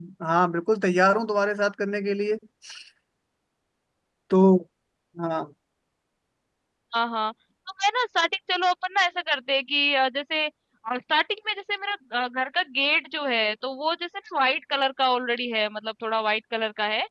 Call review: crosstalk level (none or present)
none